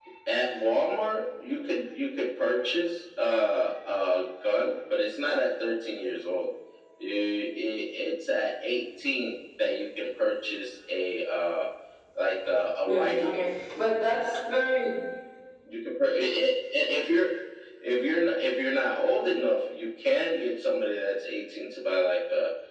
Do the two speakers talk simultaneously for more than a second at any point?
No

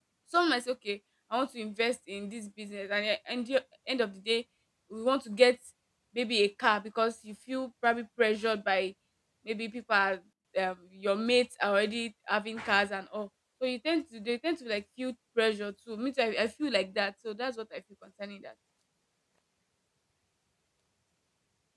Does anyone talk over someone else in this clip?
No

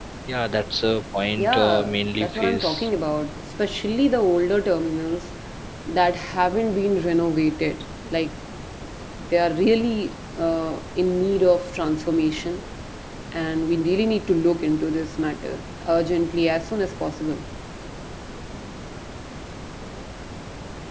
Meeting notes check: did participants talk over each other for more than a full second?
Yes, from 1.3 s

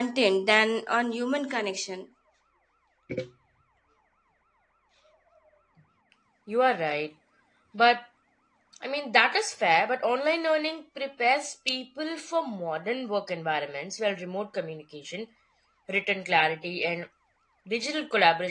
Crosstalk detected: No

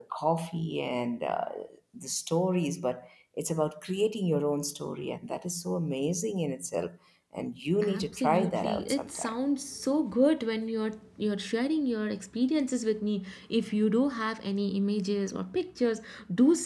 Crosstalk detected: Yes, from 7.8 s

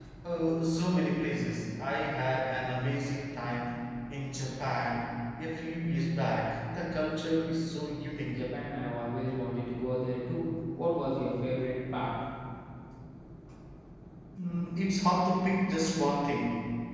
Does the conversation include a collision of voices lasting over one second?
No

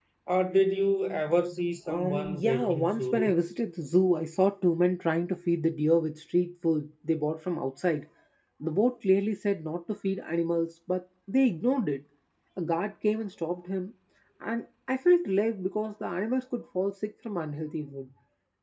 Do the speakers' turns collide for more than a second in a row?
Yes, from 1.9 s

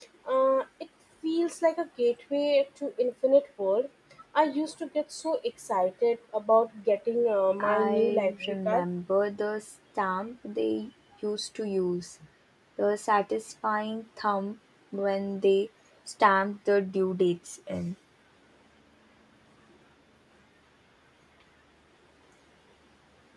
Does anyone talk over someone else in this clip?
Yes, from 7.6 s

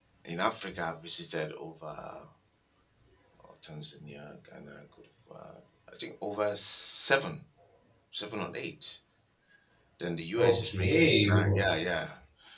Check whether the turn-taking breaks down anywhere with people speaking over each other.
Yes, from 10.4 s

